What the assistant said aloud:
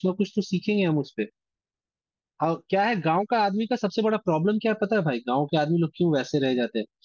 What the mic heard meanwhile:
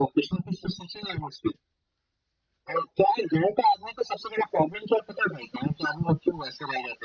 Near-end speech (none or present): none